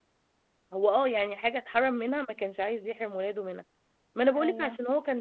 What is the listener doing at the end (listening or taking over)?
listening